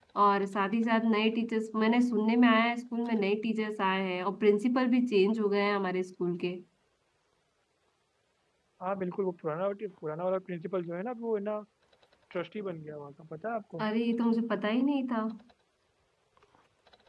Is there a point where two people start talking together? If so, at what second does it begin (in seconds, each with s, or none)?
none